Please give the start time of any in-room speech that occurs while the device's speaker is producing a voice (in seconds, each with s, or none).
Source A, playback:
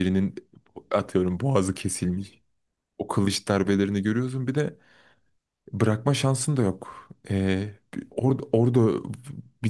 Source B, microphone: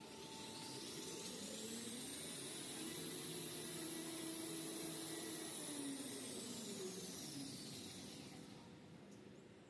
none